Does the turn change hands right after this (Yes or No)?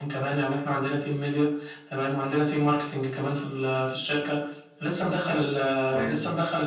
No